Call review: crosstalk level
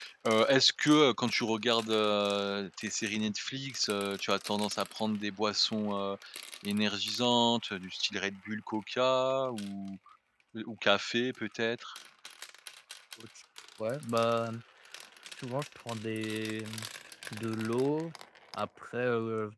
none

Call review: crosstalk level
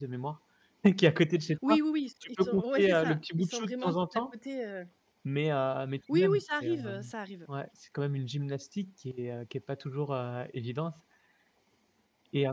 present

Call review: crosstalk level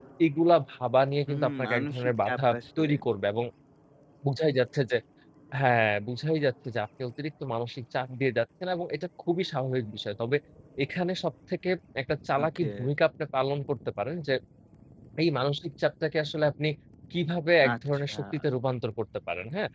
present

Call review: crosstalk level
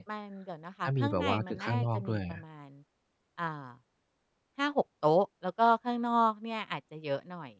present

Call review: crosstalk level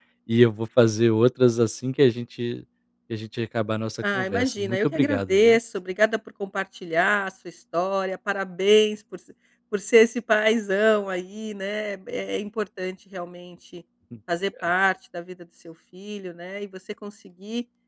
present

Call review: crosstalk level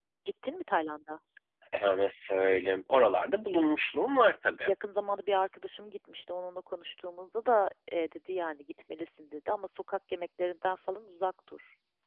none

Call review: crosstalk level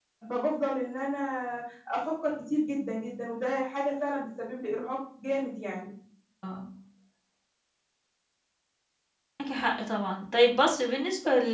none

